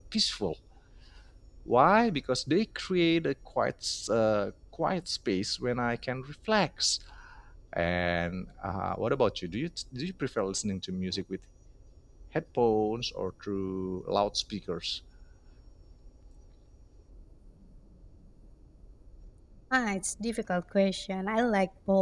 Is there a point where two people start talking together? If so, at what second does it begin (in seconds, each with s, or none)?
none